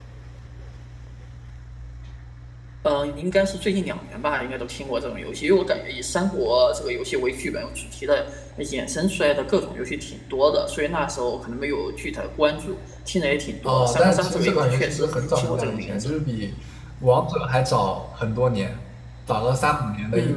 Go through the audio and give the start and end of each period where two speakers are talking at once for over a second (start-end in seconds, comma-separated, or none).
13.6-16.1